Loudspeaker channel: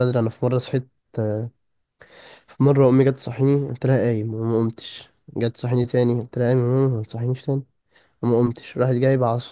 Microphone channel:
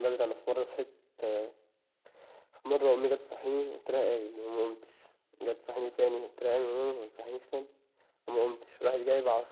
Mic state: echo only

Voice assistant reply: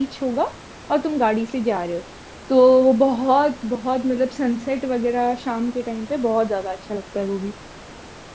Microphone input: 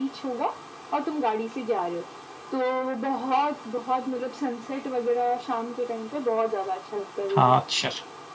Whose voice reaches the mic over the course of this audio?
both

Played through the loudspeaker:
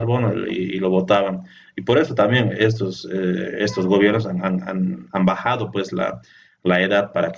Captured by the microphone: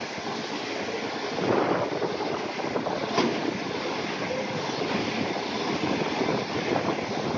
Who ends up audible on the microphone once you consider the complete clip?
neither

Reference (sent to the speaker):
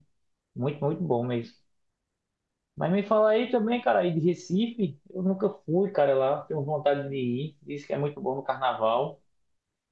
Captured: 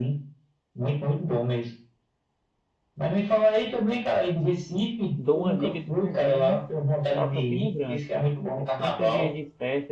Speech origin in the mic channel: both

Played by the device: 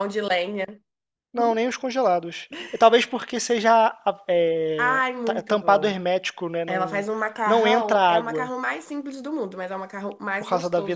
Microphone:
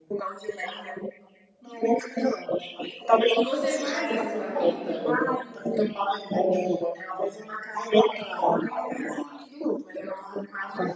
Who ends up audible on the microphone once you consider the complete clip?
both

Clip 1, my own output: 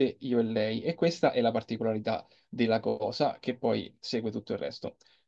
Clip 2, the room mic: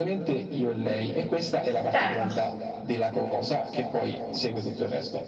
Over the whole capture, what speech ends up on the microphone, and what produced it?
both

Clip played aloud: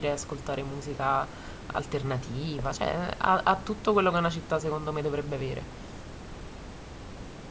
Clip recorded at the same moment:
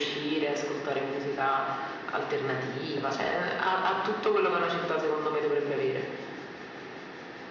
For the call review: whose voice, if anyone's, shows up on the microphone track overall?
echo only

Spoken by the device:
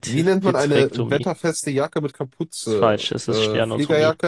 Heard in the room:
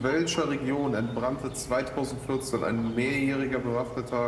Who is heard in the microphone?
user only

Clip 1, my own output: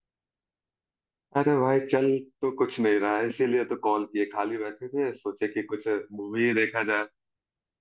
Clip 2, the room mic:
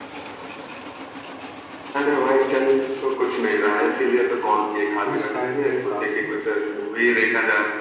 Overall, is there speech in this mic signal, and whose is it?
both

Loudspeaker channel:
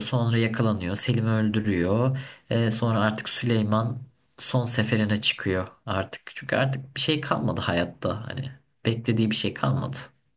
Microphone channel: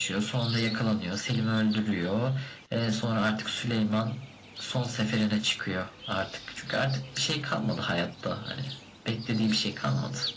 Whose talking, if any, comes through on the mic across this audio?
echo only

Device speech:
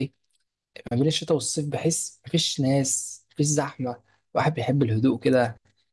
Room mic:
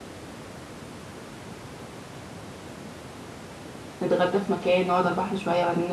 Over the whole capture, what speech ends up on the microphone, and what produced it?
user only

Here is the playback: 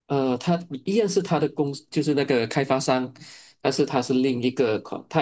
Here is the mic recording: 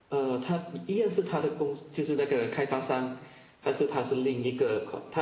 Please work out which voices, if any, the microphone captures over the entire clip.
echo only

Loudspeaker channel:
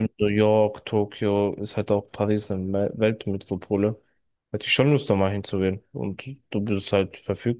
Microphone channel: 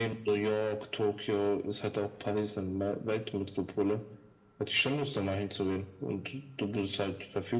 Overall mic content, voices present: echo only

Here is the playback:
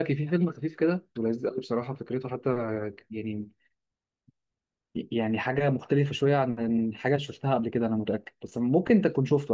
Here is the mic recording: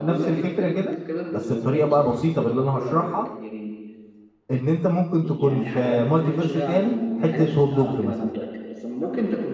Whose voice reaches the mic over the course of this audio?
both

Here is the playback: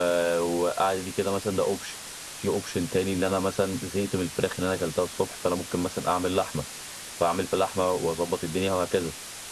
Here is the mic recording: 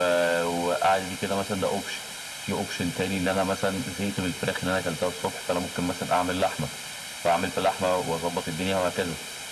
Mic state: echo only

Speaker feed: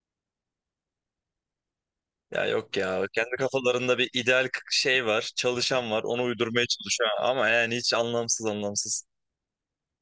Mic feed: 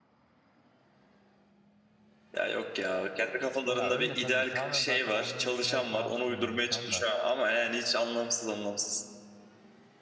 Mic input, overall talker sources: both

